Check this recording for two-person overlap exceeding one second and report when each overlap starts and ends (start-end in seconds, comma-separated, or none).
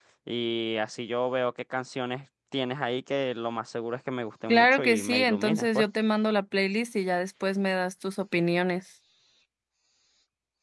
4.5-5.8